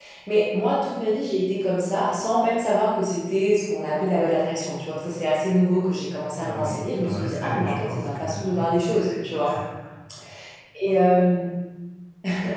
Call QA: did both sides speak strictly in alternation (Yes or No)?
No